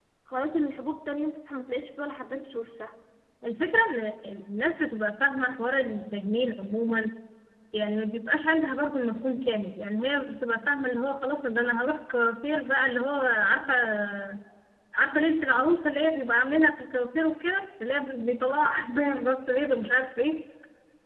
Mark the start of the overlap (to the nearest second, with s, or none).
none